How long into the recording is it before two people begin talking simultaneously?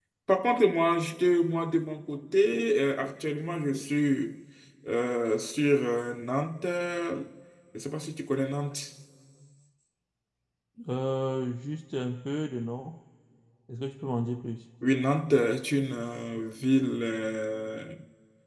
none

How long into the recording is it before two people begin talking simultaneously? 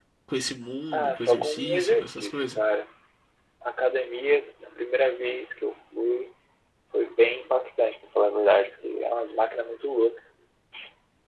0.9 s

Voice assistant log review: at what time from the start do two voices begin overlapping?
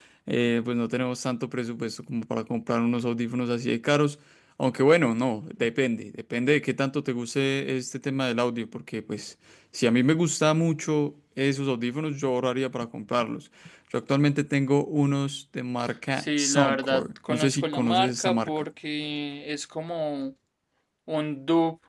16.2 s

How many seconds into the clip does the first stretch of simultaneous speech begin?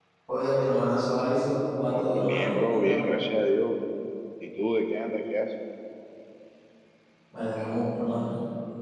1.9 s

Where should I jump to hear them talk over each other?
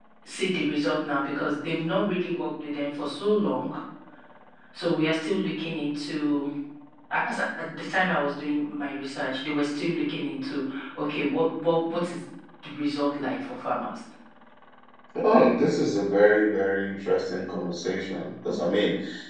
none

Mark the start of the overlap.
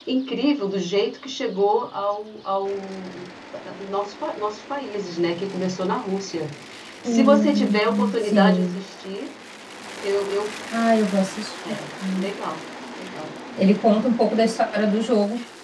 7.0 s

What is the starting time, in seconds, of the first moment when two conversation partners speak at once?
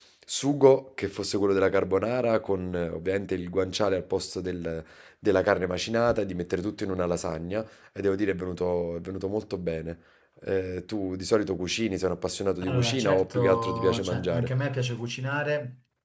12.6 s

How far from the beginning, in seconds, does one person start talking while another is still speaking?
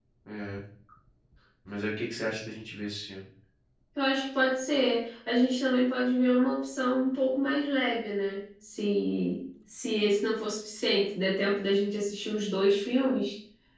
none

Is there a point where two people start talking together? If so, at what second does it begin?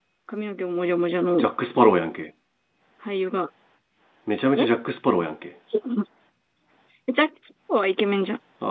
none

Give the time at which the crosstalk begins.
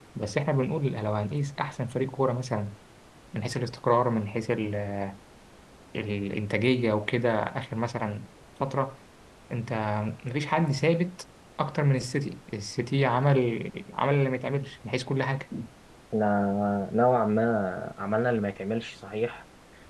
none

